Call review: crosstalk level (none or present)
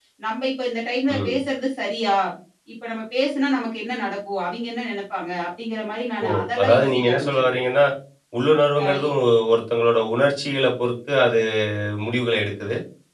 present